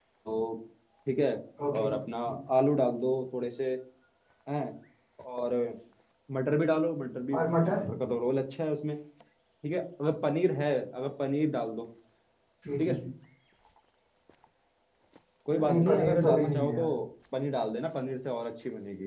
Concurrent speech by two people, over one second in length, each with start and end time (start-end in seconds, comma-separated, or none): 15.6-16.9